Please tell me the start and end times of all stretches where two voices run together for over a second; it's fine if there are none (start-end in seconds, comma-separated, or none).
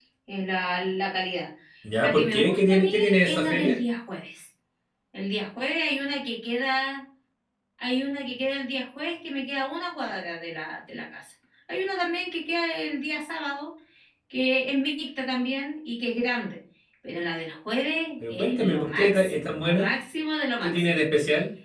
2.0-3.8, 18.3-19.9